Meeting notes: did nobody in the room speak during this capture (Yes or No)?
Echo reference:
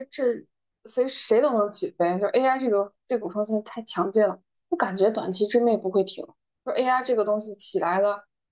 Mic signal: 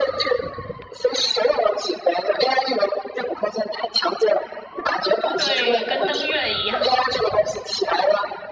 No